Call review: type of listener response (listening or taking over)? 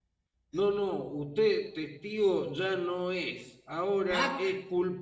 listening